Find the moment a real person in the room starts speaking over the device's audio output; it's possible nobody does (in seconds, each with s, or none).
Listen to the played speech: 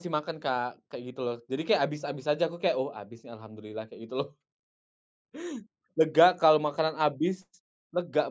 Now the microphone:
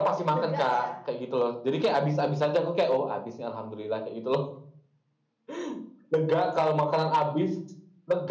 0.3 s